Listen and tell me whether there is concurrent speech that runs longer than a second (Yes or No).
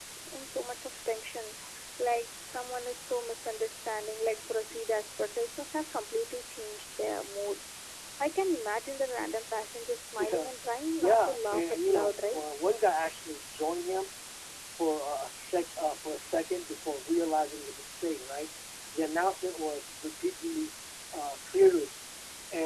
Yes